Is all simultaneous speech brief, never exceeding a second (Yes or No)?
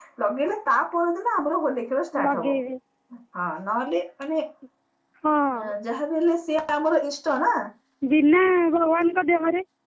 Yes